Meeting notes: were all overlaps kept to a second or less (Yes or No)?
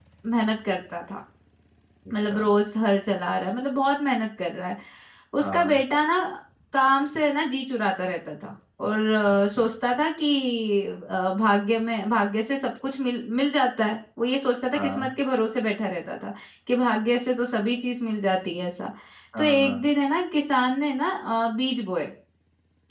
Yes